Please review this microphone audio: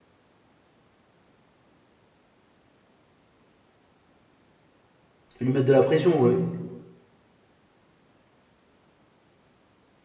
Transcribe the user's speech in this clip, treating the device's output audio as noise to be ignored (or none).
lui mettre de la pression, euh,